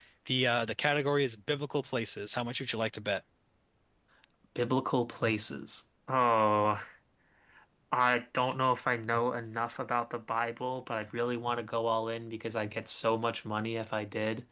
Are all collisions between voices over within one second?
Yes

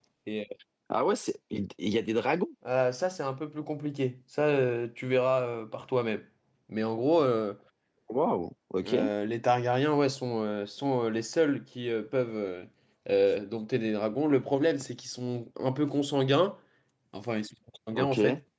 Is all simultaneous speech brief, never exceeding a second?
Yes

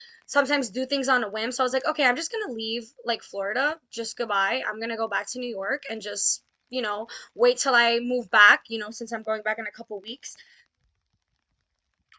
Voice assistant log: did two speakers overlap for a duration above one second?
No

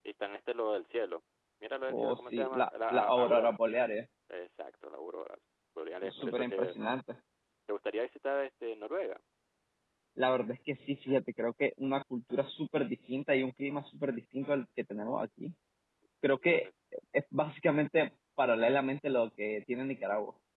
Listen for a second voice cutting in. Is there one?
Yes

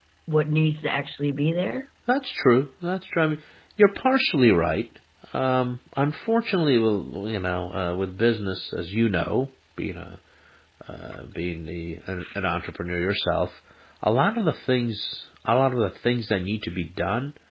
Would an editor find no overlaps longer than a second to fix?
Yes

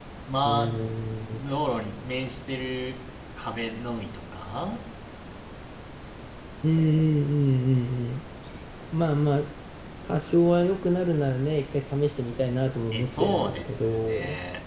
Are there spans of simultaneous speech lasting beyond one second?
Yes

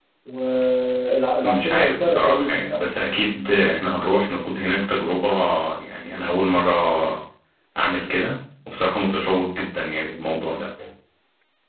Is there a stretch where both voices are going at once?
Yes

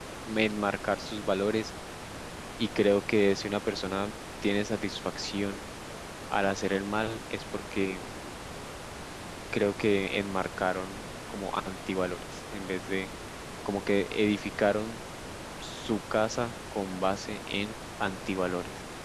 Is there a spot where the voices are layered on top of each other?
No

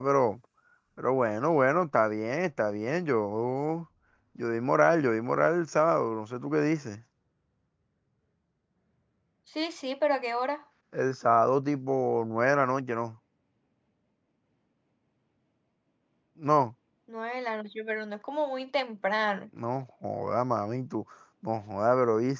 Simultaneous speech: No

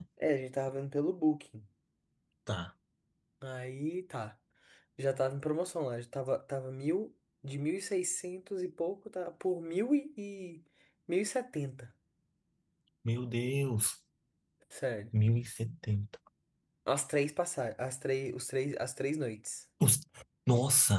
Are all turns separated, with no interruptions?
Yes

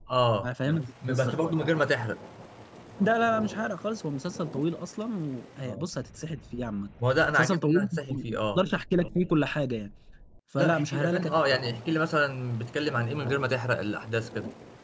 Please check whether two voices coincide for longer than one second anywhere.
Yes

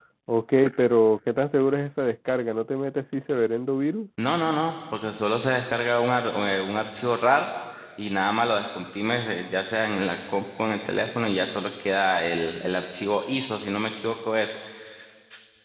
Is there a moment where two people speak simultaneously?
No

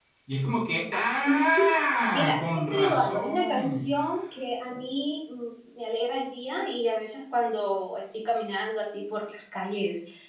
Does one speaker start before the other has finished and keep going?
Yes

